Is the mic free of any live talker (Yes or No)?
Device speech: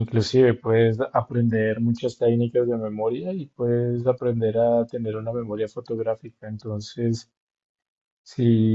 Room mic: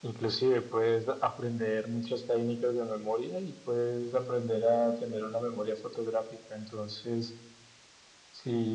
Yes